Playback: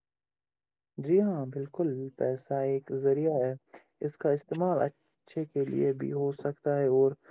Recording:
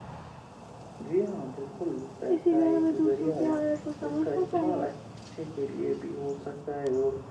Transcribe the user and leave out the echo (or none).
اسی لیے ہمیں دوسروں کی حالت کو سمجھنا چاہیے